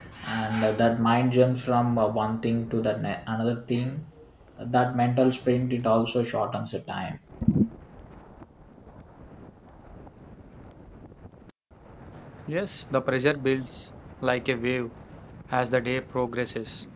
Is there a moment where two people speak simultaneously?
No

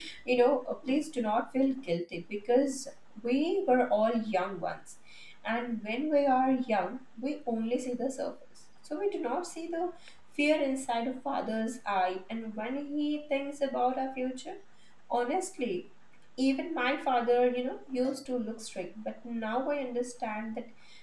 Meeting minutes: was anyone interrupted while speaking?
No

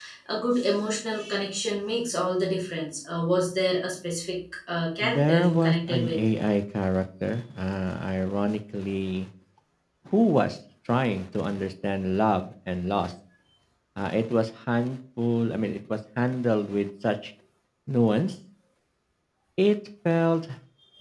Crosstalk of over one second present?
Yes, from 5.0 s

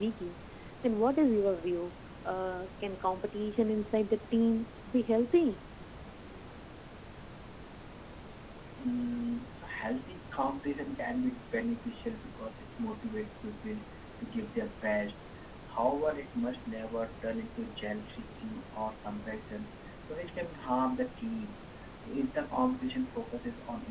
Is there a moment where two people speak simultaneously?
No

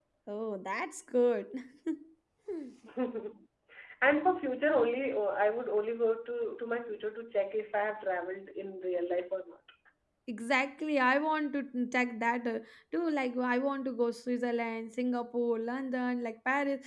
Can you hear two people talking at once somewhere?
No

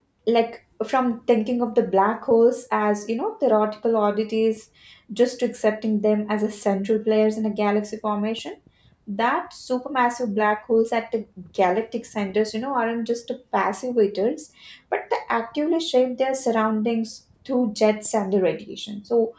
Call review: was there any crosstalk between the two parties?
No

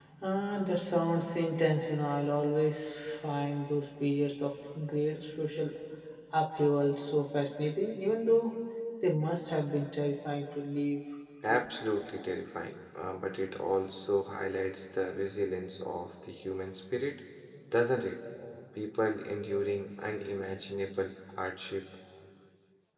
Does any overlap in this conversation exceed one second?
No

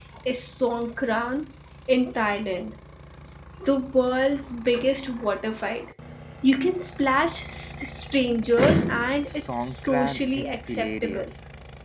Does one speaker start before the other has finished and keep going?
Yes, from 9.3 s

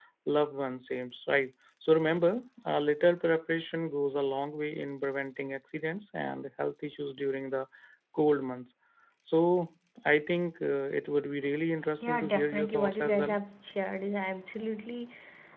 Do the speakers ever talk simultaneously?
Yes, from 12.0 s

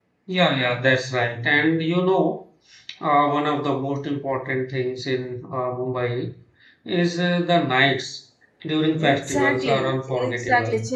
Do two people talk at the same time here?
Yes, from 9.0 s

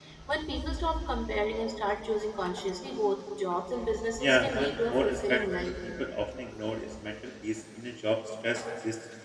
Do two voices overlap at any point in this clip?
Yes, from 4.2 s

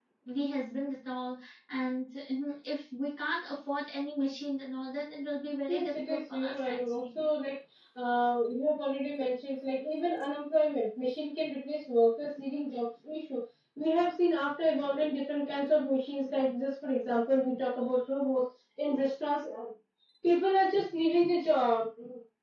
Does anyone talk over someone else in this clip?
Yes, from 5.7 s

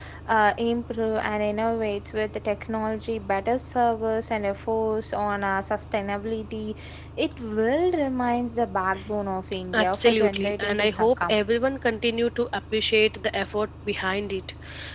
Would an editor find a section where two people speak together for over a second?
Yes, from 9.7 s

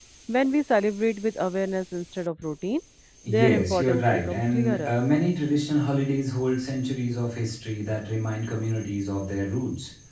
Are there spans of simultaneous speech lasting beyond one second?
Yes, from 3.3 s

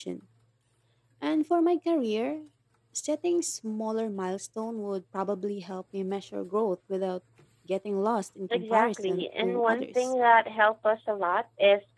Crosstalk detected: Yes, from 8.5 s

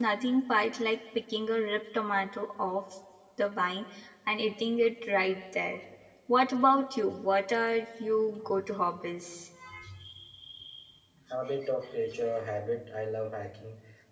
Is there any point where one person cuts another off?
No

